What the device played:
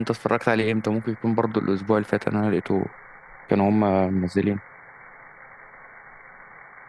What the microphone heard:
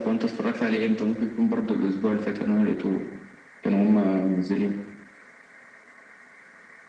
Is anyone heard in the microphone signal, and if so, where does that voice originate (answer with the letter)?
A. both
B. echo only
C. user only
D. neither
B